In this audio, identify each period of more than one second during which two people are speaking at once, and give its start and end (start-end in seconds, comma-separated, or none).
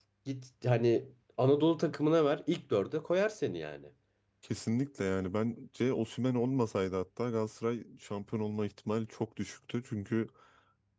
none